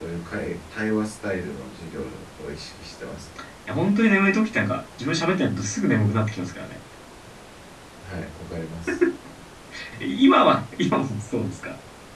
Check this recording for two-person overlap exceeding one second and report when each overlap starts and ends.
none

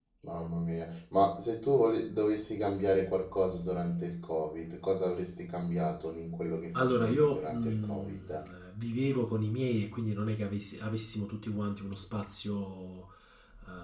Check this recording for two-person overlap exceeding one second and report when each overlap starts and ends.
6.7-8.4

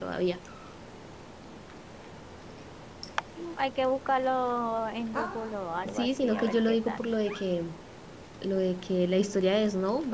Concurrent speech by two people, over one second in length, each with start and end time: 5.8-7.1

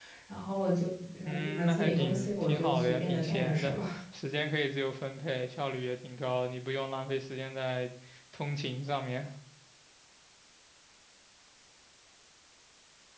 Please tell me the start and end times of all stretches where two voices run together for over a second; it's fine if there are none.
1.2-3.8

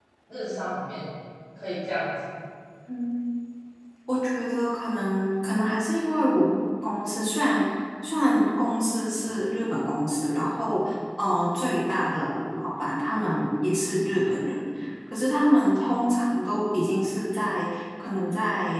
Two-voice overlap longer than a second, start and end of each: none

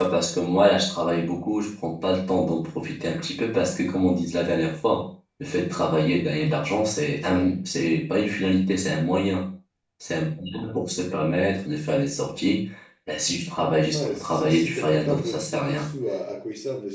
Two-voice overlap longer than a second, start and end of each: 13.9-15.9

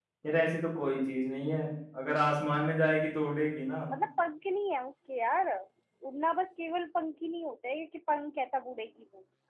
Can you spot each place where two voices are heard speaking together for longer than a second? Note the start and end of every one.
none

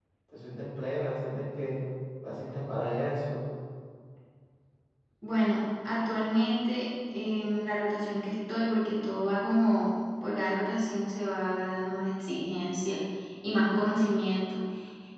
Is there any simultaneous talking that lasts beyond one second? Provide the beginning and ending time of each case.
none

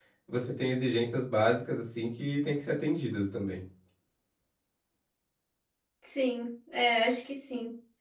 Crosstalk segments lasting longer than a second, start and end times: none

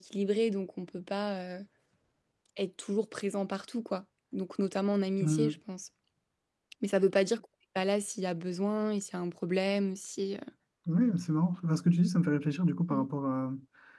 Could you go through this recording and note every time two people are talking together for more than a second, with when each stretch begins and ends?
none

